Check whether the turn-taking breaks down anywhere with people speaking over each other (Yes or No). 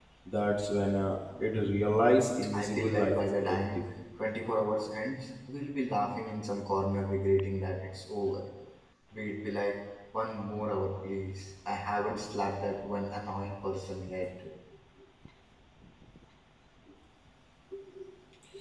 Yes